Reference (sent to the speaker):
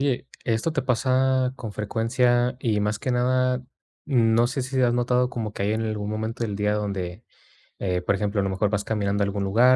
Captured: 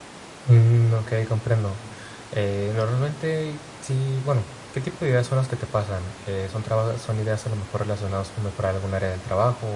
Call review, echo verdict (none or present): none